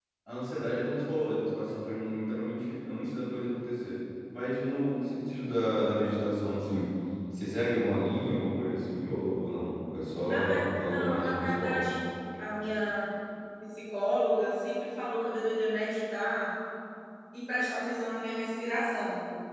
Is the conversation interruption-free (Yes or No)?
No